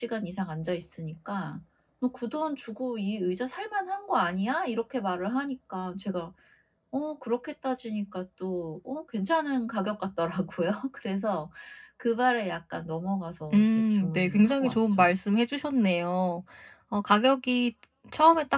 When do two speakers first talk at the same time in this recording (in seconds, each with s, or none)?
13.5 s